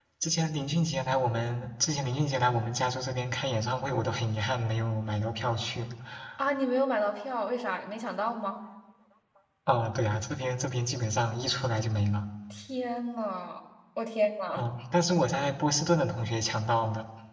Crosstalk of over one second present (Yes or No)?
No